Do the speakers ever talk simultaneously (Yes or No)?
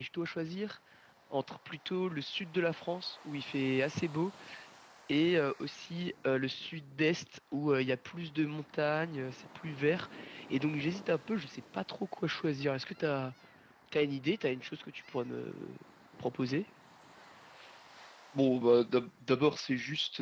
No